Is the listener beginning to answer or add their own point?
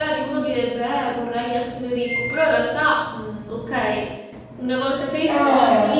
No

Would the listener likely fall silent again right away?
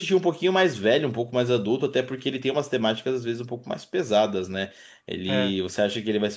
Yes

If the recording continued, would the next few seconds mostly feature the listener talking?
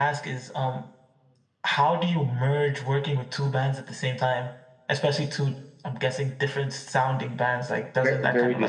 Yes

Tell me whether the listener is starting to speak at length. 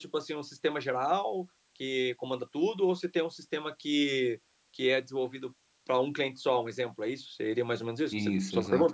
Yes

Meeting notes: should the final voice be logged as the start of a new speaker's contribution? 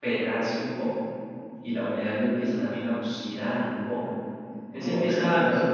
Yes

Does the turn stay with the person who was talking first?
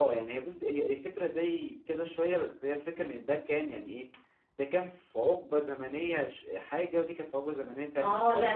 No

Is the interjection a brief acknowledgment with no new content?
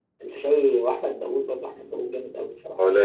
Yes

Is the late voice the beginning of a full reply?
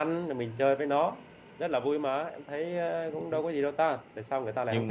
Yes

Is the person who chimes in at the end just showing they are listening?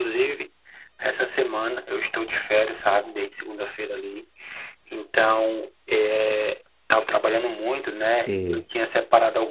Yes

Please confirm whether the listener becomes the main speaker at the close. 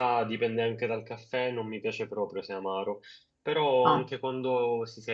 No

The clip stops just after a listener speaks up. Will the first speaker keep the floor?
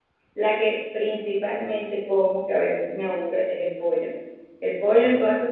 Yes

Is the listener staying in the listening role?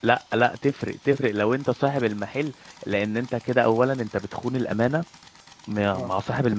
Yes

